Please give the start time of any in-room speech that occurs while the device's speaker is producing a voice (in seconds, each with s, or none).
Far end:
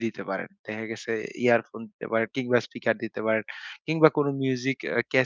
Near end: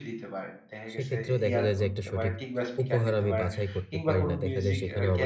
0.9 s